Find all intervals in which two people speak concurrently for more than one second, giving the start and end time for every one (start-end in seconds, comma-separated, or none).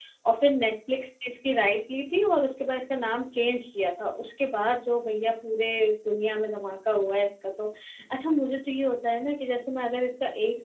none